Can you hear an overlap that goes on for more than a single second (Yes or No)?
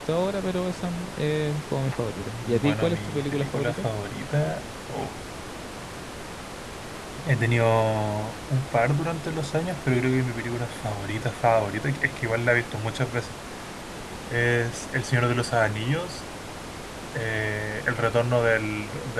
Yes